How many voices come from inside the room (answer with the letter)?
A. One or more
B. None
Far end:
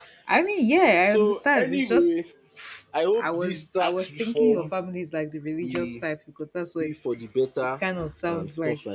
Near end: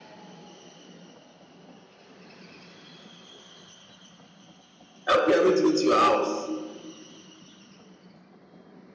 A